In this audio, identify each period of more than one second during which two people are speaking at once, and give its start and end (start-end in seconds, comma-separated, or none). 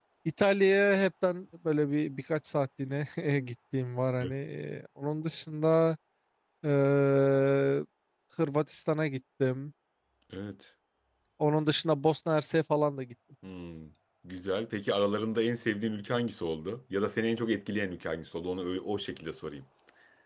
none